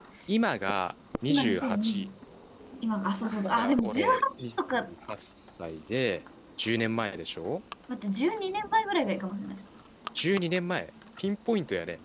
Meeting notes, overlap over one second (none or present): present